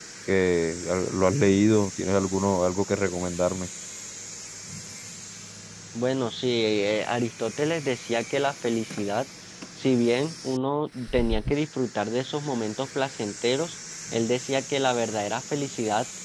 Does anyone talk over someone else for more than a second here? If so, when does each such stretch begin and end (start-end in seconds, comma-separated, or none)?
none